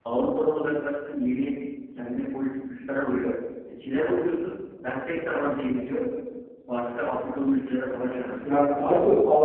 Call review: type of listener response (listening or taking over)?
taking over